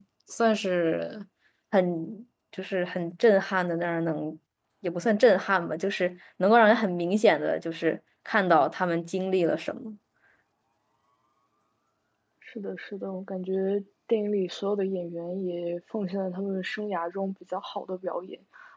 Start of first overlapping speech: none

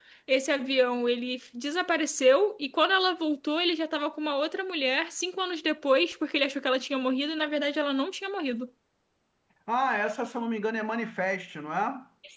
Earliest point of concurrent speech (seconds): none

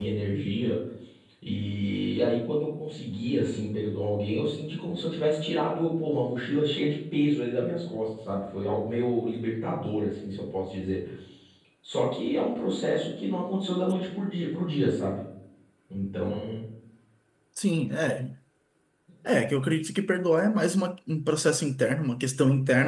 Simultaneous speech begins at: none

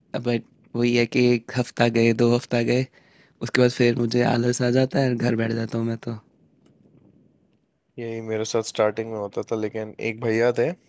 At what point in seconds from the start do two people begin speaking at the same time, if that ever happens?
none

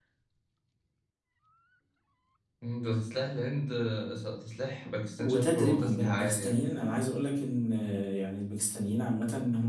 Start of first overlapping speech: 5.2 s

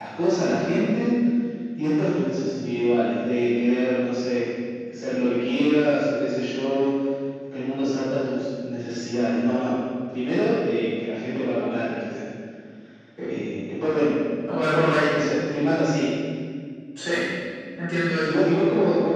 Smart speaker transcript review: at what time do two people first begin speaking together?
none

